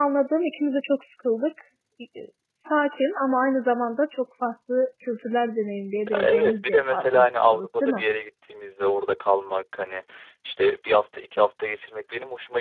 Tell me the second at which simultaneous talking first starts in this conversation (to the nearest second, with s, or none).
6 s